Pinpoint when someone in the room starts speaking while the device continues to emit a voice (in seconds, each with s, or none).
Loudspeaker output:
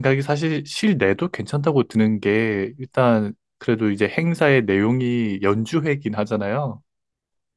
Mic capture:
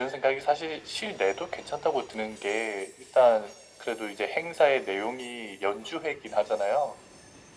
none